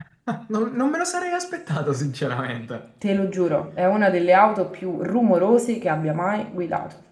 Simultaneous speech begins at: none

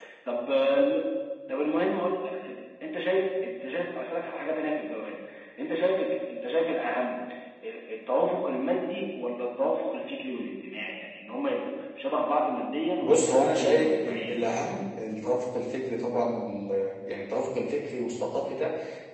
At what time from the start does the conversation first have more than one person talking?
13.0 s

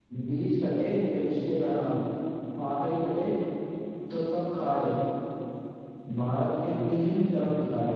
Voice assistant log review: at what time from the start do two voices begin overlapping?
none

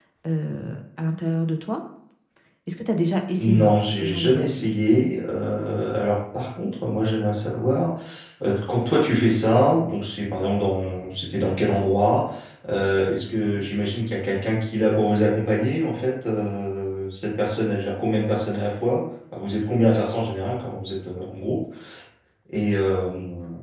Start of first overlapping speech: 3.4 s

